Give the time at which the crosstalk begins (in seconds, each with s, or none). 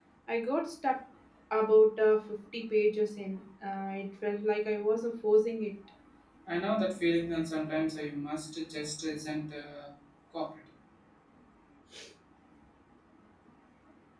none